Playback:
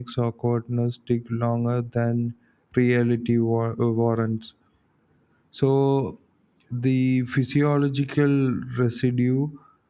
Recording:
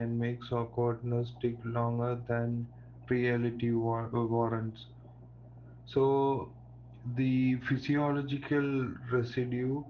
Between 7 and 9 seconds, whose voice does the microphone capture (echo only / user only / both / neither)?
echo only